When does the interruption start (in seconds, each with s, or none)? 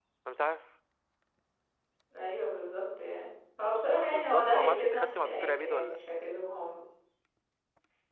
4.1 s